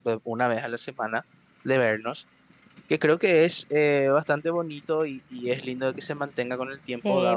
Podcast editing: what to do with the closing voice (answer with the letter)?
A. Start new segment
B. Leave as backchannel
A